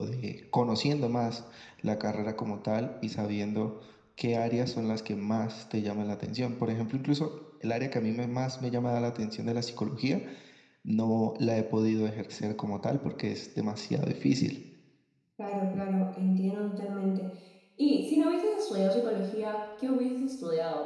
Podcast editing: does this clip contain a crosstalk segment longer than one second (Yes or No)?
No